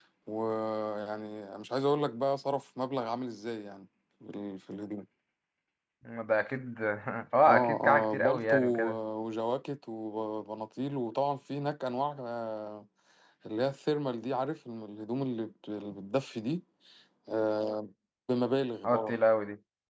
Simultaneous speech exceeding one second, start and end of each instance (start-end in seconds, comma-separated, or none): 7.5-9.0